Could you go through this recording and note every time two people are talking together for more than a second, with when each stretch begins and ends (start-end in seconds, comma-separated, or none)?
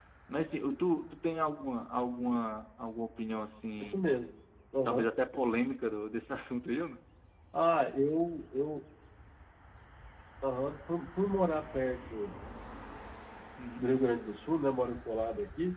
none